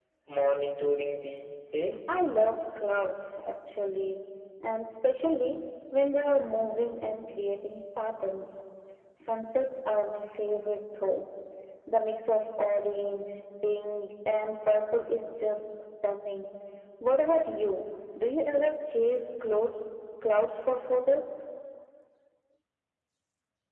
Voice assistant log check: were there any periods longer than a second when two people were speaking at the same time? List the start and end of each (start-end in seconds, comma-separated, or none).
none